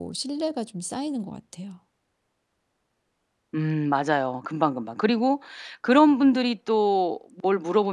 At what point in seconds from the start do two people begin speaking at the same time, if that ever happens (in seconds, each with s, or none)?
none